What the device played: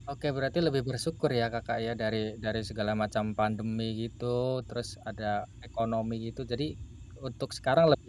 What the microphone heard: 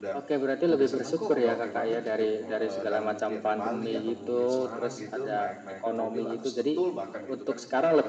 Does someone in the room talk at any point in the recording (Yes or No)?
Yes